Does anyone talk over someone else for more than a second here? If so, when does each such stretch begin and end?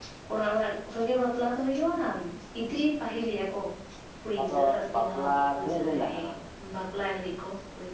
4.4-6.1

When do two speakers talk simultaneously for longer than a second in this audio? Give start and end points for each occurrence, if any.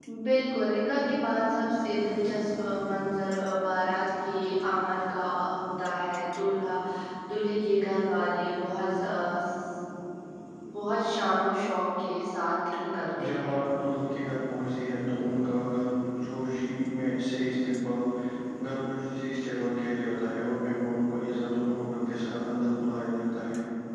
none

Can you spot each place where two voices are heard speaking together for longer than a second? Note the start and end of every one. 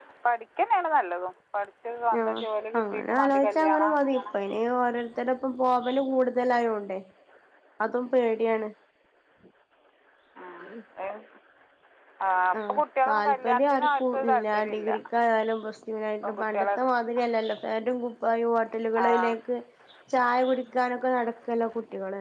2.8-4.2, 13.1-14.9

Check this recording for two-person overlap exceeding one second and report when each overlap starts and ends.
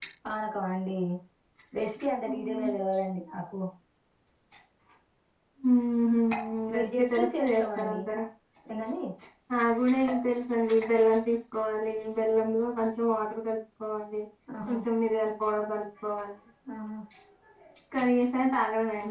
6.7-8.0

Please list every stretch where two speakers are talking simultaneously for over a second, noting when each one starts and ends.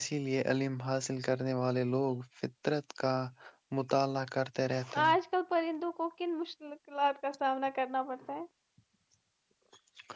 none

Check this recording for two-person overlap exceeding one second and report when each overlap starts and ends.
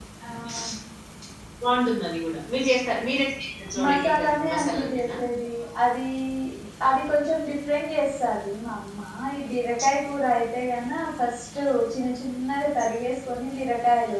3.8-5.1

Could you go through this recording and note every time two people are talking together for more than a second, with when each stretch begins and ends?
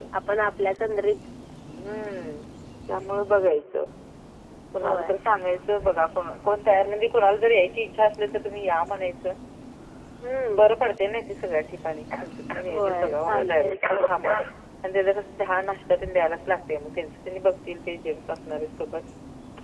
12.7-14.0

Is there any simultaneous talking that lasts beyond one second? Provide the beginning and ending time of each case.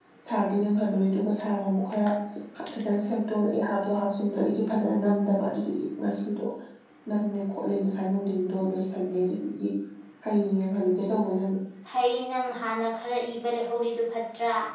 none

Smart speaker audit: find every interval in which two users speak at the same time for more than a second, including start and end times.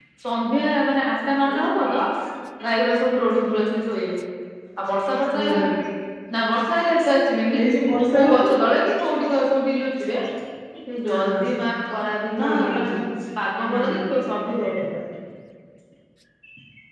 none

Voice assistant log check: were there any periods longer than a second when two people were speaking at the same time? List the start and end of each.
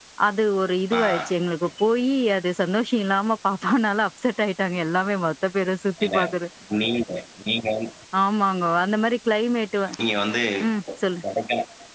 none

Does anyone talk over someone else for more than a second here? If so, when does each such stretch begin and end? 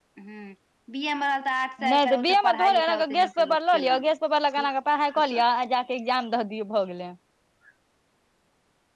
1.9-4.1

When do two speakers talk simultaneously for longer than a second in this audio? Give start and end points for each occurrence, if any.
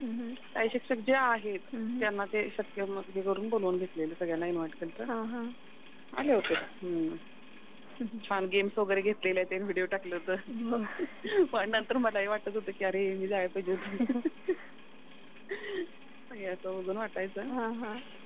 none

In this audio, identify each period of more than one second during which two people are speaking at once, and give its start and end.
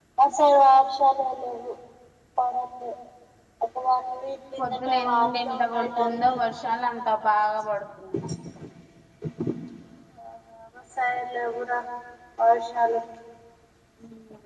4.6-6.7

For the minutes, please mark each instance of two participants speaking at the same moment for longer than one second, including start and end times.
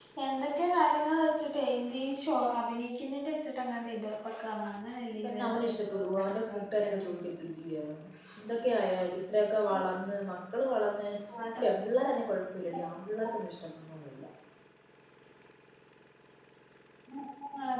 5.2-7.1

